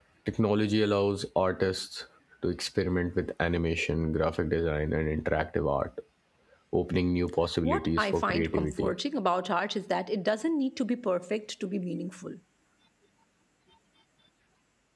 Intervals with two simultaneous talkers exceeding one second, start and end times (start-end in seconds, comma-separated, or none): 7.6-8.9